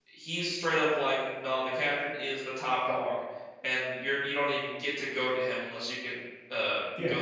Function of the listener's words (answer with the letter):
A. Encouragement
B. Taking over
B